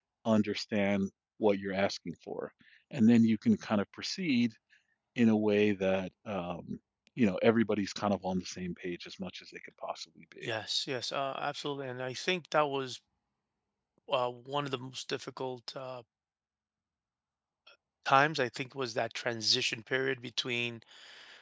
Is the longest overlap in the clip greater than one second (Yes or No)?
No